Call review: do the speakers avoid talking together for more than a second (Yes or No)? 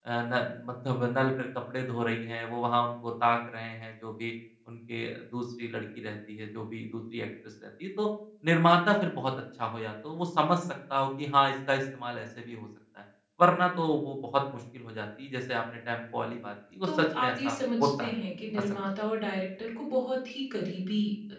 No